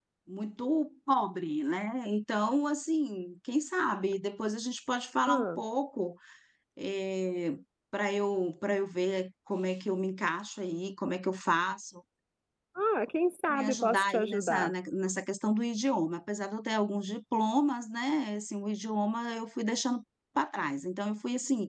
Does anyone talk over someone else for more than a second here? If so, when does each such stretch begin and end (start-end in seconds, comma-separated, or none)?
13.5-14.7